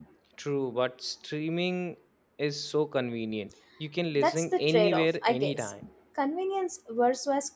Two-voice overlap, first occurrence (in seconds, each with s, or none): 4.2 s